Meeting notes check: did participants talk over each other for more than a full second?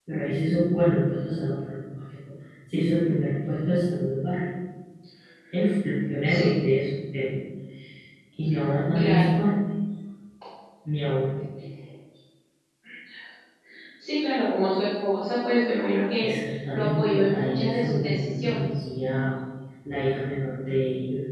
Yes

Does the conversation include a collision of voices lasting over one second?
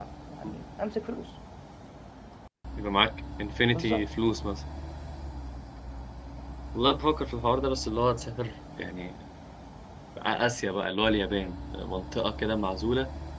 No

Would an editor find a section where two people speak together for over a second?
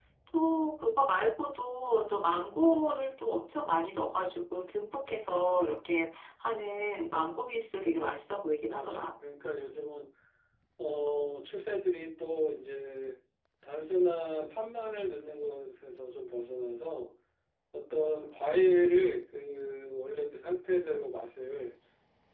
No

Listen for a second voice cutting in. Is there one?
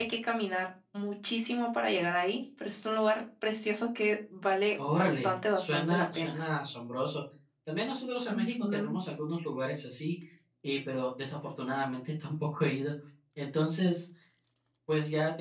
Yes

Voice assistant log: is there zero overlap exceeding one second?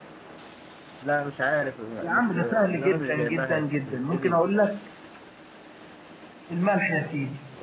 No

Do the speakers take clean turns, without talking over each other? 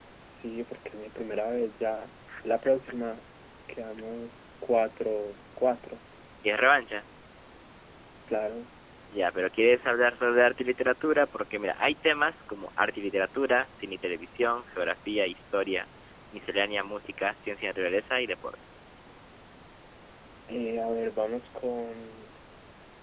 Yes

